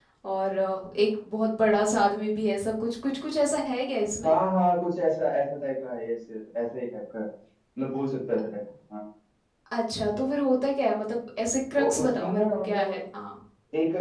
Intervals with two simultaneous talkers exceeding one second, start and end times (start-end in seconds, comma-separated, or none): 11.8-13.0